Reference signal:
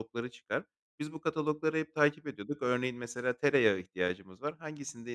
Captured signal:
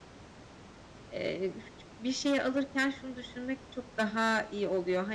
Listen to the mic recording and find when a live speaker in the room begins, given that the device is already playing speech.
1.1 s

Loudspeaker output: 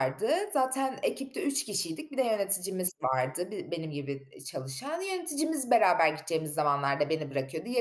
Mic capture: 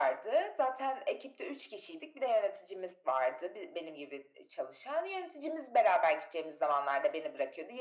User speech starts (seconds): none

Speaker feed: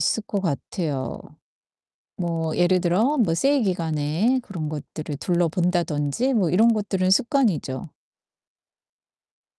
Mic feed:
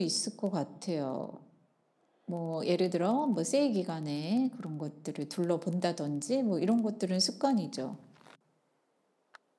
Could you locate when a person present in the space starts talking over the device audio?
none

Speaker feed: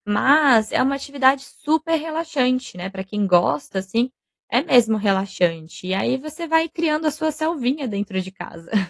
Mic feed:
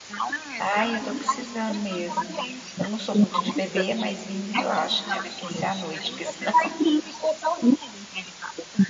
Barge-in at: 0.6 s

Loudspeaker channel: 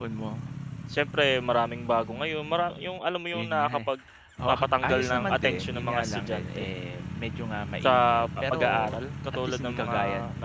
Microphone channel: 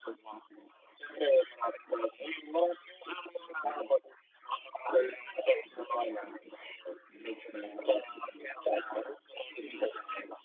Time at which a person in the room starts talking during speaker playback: none

